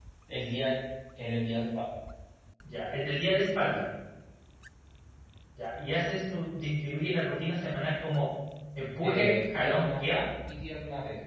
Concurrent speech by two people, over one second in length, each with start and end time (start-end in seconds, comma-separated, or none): 9.0-10.3